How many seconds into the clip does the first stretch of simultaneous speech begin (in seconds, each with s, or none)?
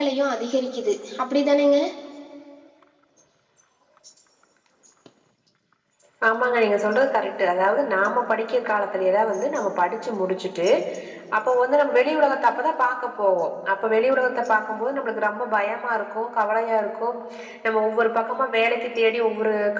none